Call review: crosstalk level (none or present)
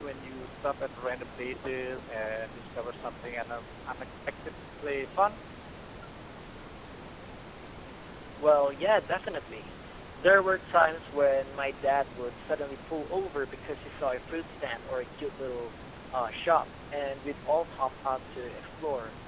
none